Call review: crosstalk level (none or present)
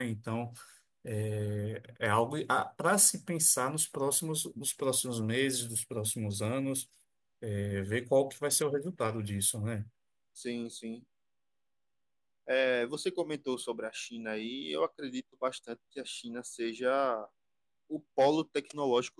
none